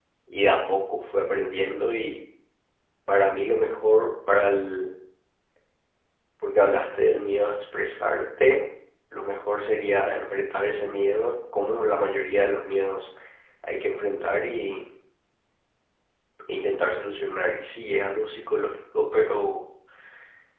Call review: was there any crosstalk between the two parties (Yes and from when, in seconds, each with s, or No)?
No